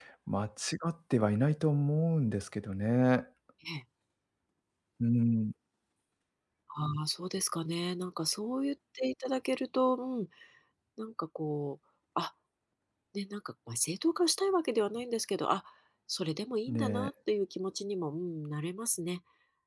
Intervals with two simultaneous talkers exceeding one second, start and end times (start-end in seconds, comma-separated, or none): none